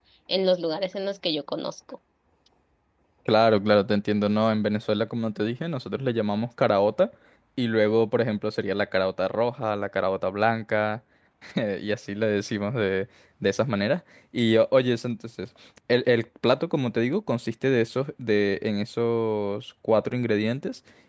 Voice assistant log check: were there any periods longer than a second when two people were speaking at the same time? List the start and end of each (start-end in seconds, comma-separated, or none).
none